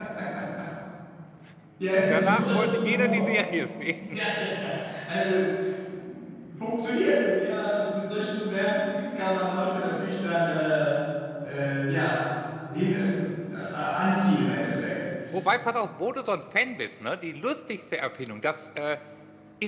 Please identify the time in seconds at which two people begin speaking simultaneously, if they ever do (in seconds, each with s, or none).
2.1 s